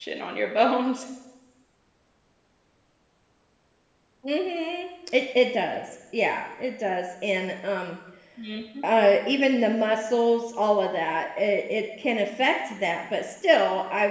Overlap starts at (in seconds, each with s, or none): none